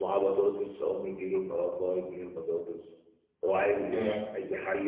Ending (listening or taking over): listening